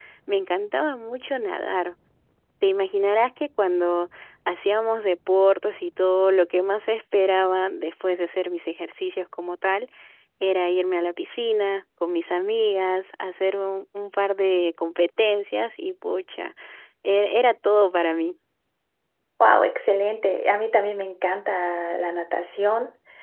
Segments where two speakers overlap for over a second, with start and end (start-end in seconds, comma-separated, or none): none